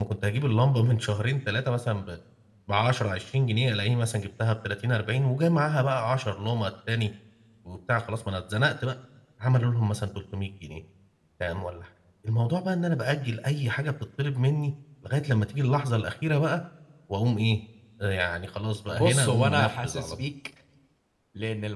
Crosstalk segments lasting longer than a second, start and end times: 18.9-20.2

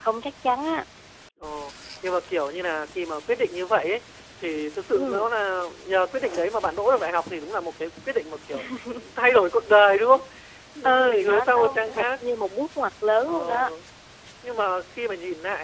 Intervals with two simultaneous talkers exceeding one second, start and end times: 10.8-12.0

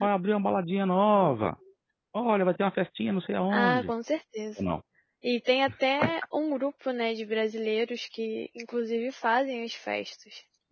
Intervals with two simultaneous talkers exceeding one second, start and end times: none

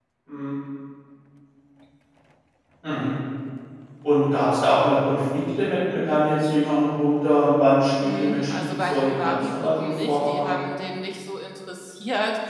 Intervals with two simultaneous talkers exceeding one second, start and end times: 8.0-10.5

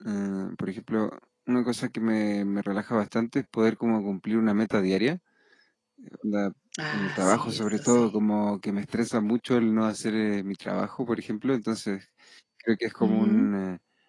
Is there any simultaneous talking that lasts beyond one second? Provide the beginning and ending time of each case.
6.9-8.1

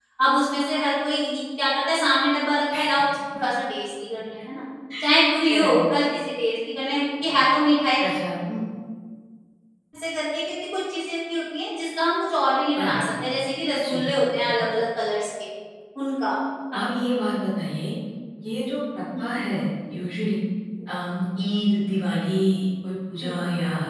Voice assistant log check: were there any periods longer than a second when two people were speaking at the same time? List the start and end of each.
none

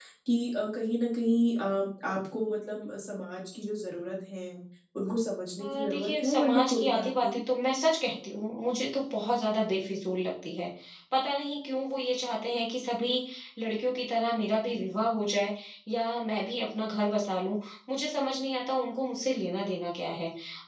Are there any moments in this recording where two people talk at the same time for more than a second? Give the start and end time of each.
5.6-7.4

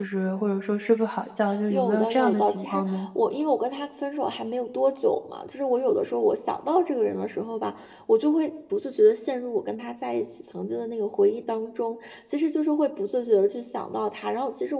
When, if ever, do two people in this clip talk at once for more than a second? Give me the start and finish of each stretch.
1.7-3.1

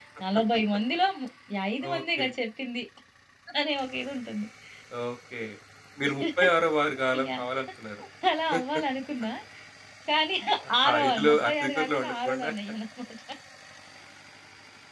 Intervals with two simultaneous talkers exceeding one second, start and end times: 10.9-12.5

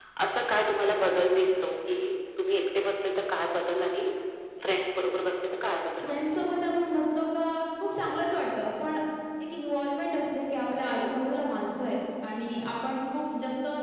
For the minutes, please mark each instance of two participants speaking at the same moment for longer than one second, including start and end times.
none

